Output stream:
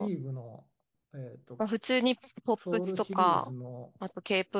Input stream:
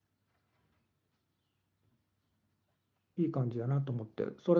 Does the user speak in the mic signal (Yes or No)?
Yes